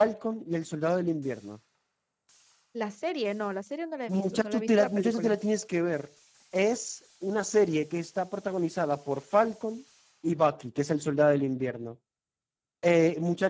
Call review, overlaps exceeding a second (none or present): present